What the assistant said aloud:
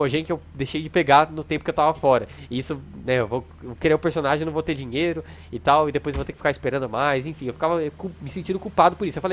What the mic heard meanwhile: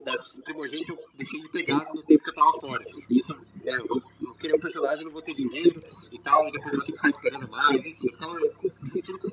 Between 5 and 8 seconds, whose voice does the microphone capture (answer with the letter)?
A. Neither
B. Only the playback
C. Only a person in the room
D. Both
B